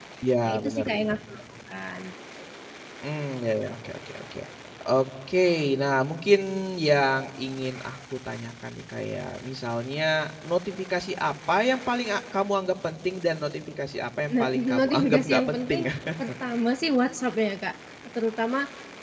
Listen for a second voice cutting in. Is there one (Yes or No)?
Yes